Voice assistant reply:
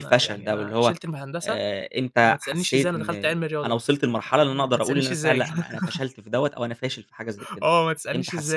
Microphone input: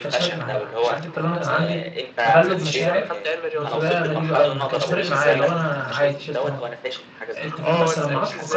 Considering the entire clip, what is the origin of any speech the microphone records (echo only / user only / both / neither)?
both